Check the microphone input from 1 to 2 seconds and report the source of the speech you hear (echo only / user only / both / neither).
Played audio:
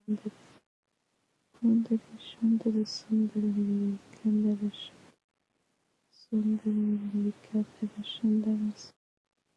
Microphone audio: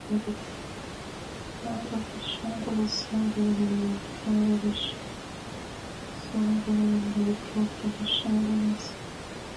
echo only